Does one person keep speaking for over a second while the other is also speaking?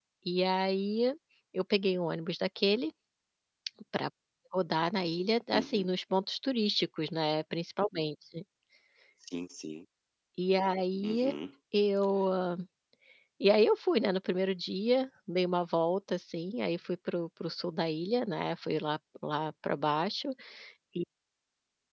No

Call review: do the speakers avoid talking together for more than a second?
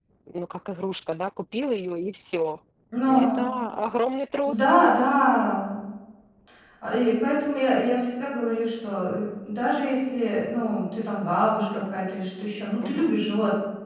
Yes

